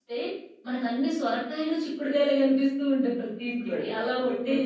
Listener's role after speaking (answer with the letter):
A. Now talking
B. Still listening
A